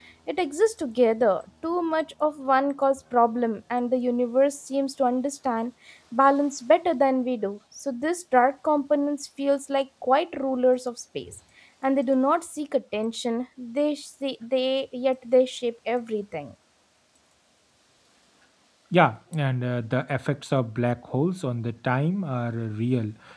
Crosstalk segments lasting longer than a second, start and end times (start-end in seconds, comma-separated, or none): none